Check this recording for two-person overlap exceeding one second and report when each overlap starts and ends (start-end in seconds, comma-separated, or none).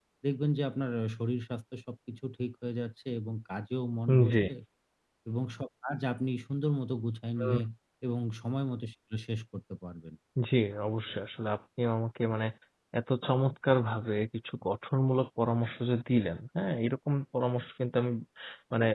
none